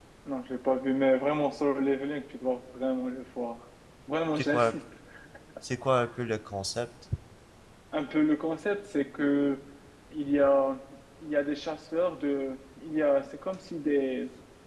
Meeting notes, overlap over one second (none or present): none